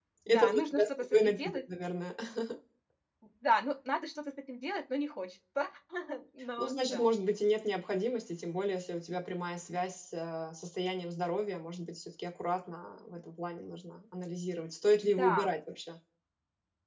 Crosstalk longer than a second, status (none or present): present